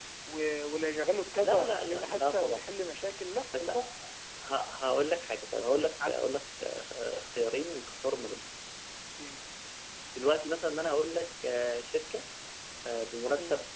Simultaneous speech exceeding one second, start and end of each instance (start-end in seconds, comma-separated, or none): 1.4-2.6